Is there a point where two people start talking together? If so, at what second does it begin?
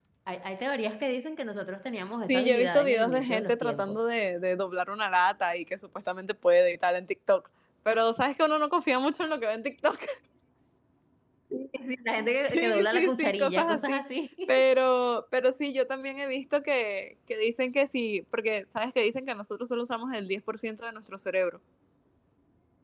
2 s

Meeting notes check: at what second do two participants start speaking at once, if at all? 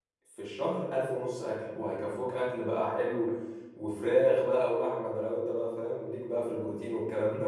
none

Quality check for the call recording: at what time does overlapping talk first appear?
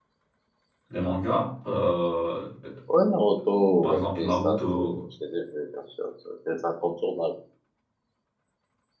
4 s

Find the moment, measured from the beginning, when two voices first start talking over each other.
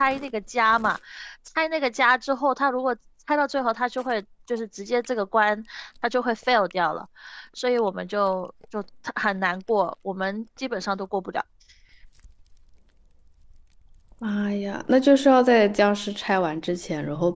none

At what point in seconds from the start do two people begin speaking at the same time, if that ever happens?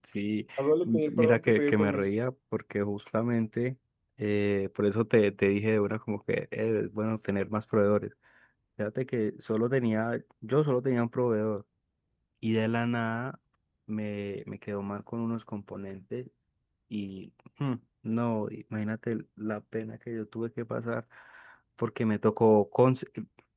1 s

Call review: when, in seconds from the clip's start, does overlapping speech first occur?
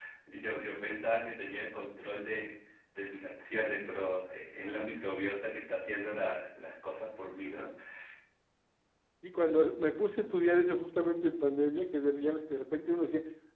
none

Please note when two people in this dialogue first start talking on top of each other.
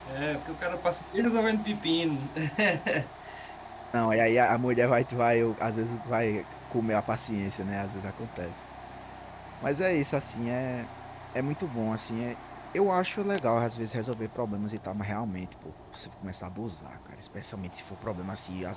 none

